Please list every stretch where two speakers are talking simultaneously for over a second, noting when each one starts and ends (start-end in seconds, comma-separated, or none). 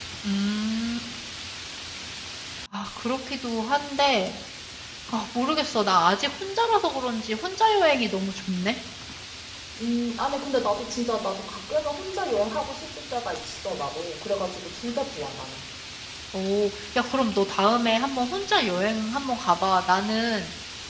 none